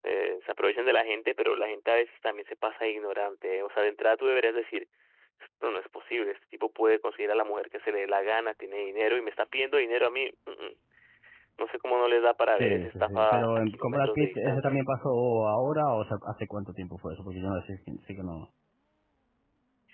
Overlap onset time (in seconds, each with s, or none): 12.5 s